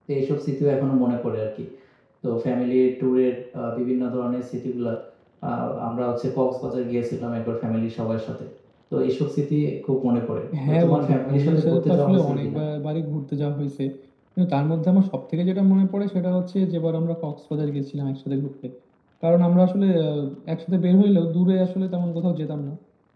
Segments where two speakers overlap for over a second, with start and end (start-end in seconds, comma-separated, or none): 10.7-12.6